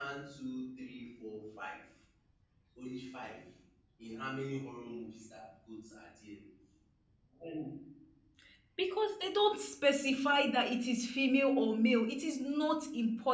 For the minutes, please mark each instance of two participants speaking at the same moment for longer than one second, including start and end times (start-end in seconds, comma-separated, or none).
none